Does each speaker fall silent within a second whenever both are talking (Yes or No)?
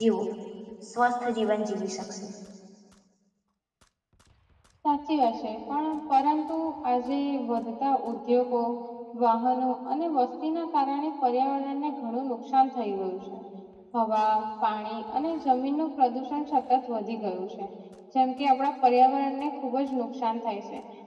Yes